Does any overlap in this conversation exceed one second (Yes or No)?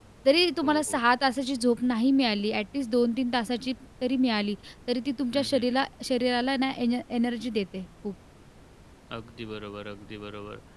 No